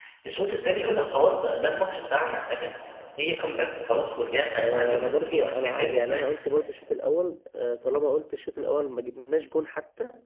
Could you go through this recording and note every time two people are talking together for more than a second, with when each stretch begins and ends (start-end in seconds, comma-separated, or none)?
4.6-6.3